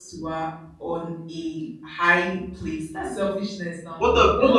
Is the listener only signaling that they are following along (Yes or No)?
No